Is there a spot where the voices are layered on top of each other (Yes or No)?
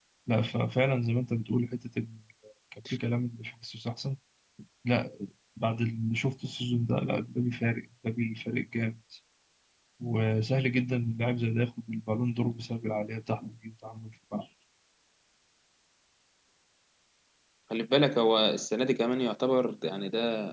No